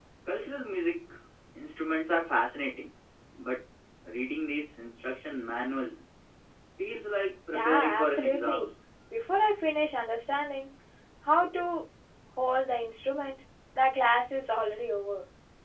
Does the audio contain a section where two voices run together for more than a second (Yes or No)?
Yes